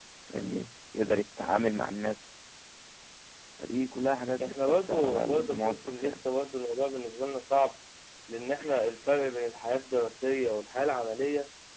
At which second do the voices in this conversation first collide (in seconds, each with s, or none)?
4.4 s